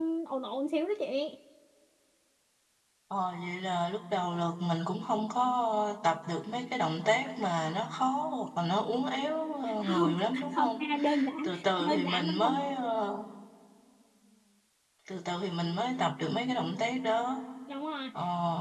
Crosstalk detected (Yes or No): Yes